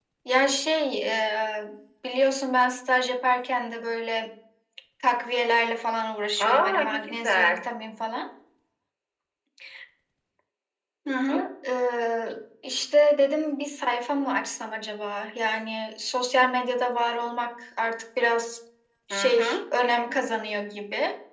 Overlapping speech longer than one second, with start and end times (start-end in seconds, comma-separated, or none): 6.4-7.7